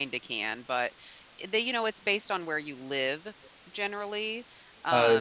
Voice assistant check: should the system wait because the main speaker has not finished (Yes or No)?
No